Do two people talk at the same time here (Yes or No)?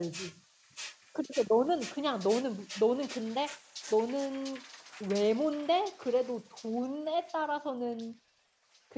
No